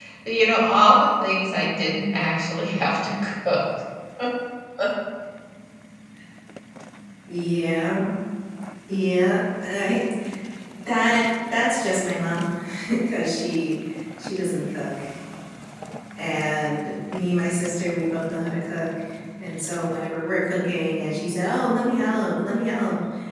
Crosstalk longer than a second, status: none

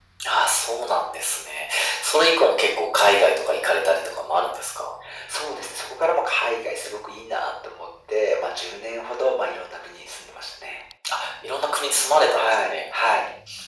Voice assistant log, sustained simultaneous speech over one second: none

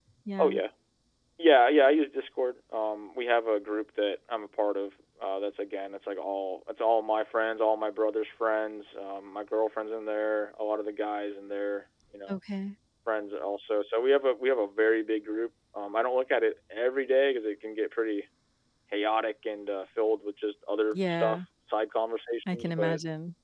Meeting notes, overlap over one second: none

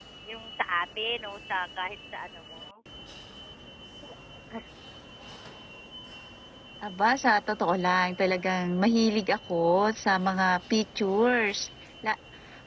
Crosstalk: none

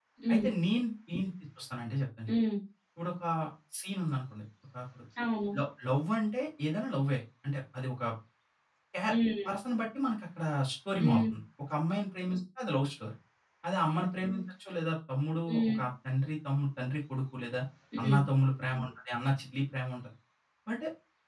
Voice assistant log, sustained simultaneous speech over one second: none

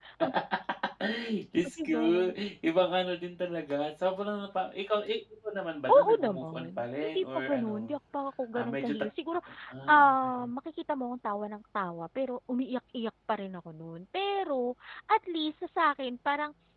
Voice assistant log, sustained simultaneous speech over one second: present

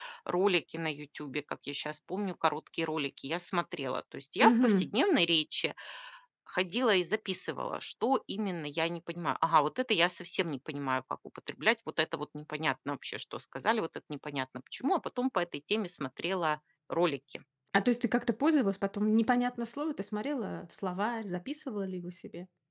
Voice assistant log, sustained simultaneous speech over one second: none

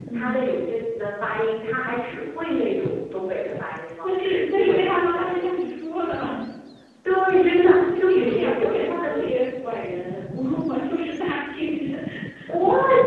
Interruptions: present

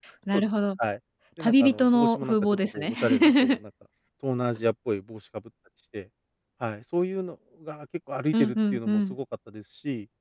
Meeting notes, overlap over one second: present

